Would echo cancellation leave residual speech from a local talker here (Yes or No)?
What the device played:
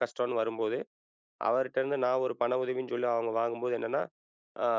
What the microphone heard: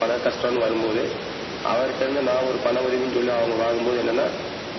No